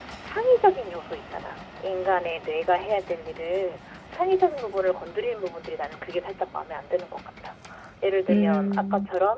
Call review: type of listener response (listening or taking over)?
listening